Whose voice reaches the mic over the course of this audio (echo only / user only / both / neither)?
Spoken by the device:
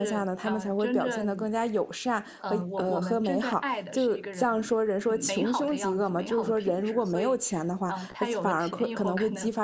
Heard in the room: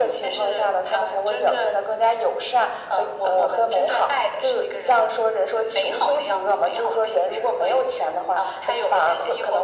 echo only